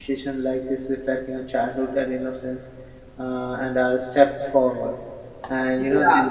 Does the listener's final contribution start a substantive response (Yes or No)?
Yes